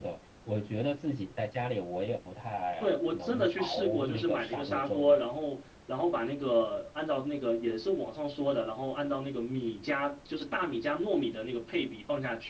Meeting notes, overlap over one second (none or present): present